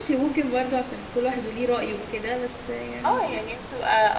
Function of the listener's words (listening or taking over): taking over